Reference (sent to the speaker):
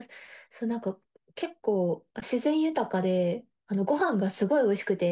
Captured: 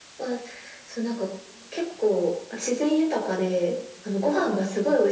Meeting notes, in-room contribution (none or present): none